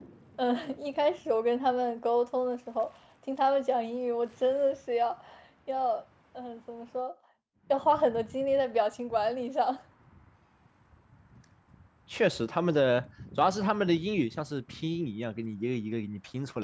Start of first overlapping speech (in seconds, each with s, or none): none